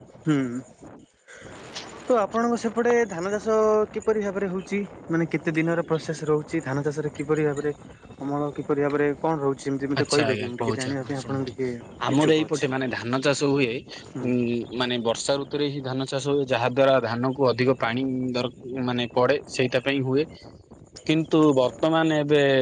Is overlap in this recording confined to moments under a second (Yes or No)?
No